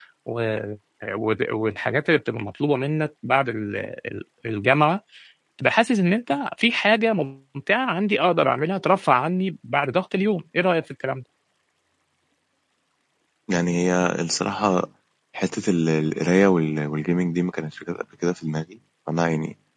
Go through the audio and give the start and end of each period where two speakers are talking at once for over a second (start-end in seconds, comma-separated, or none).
none